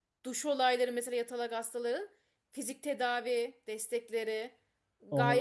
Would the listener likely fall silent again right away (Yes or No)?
No